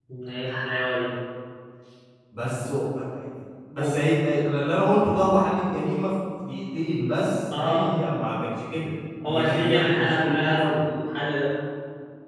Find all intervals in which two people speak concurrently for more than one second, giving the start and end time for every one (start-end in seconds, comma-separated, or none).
9.3-10.8